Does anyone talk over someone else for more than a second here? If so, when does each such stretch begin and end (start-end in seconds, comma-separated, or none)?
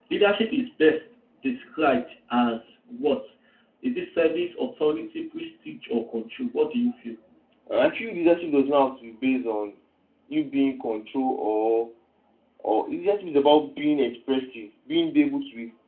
none